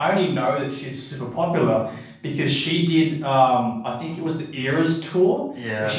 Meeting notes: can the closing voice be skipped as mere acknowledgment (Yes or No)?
Yes